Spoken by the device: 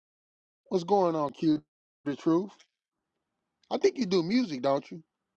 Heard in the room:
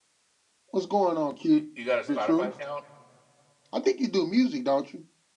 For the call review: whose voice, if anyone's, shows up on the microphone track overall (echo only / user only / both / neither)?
both